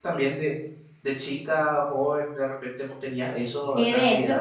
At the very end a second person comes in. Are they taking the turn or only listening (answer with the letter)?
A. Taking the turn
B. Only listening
A